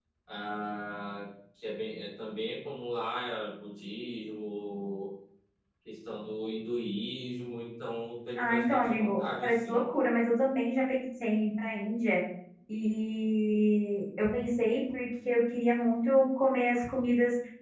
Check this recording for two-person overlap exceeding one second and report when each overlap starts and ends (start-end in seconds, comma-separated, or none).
8.4-9.8